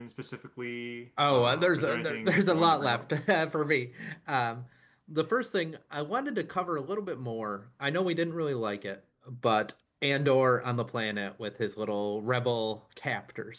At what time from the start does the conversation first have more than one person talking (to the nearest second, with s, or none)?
1 s